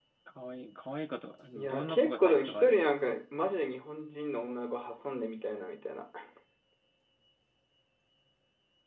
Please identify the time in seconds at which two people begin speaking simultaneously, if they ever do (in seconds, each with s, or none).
1.6 s